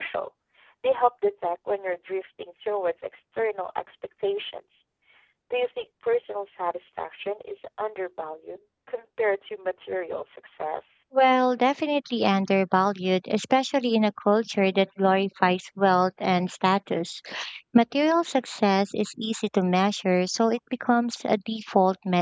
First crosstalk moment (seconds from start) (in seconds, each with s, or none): none